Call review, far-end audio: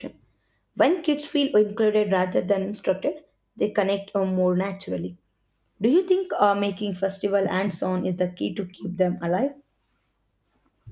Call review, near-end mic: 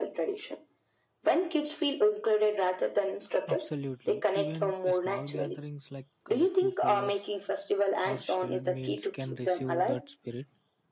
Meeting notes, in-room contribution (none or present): present